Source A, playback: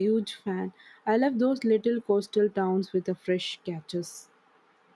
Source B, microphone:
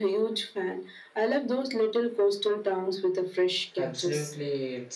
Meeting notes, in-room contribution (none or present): present